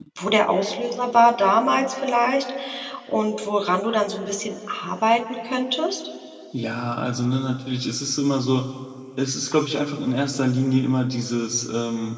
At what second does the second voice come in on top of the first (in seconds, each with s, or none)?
none